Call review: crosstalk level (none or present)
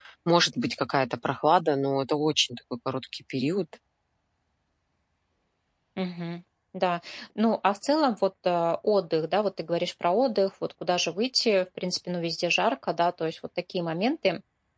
none